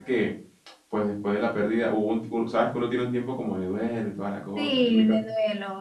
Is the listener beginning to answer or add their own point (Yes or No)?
Yes